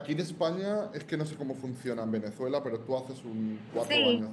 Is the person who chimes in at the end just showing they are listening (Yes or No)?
No